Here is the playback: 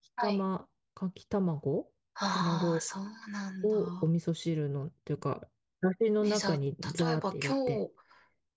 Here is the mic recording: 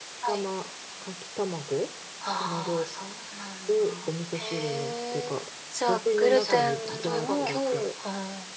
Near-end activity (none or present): present